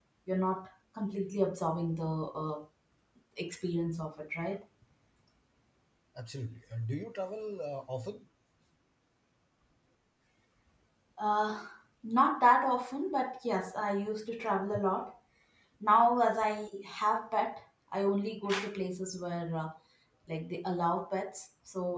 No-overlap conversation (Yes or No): Yes